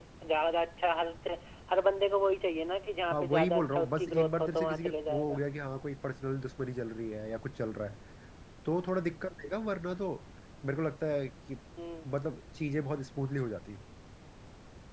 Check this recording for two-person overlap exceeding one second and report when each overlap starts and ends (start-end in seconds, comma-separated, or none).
3.1-5.4